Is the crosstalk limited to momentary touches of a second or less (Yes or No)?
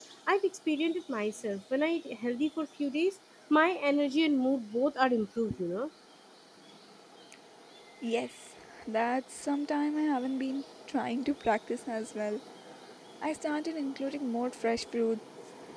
Yes